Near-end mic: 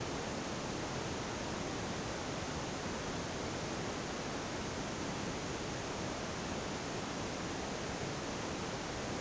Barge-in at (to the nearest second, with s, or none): none